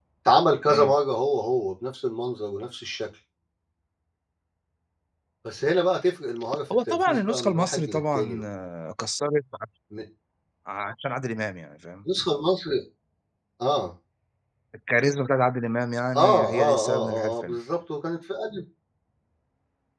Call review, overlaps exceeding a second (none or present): present